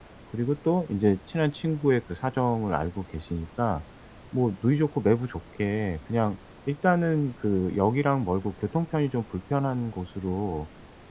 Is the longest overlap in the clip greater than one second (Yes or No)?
No